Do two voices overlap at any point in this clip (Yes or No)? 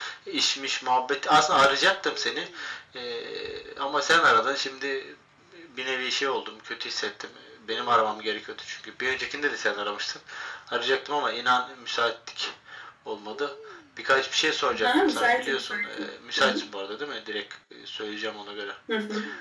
Yes